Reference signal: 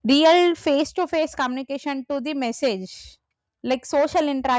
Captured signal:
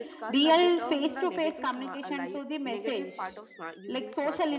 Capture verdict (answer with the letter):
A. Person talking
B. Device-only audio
A